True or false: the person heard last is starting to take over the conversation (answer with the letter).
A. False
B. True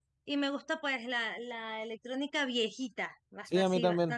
B